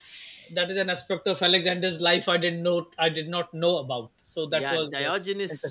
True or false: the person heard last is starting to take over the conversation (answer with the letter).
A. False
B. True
B